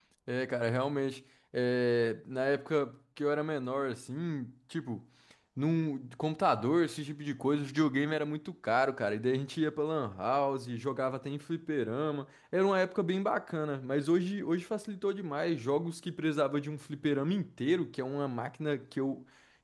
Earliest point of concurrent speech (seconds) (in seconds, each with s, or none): none